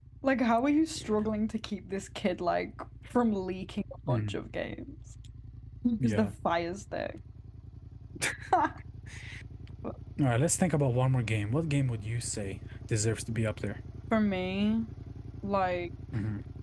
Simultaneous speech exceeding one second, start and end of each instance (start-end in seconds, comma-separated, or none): none